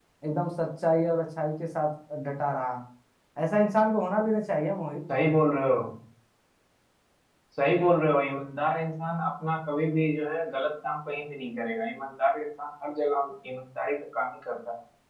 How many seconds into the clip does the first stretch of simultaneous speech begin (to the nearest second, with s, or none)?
none